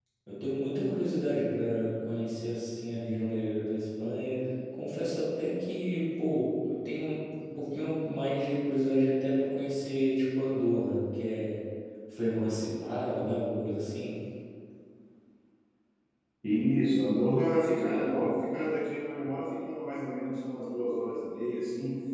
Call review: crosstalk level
none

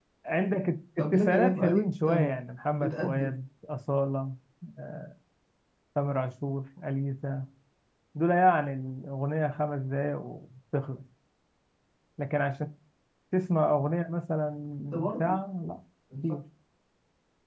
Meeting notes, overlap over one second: present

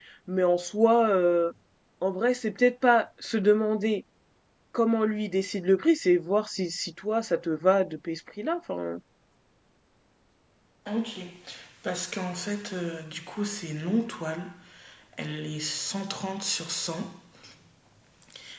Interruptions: none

